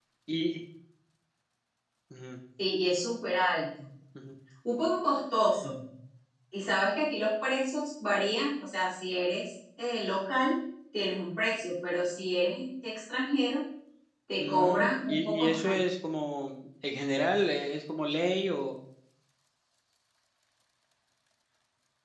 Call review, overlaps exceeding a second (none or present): present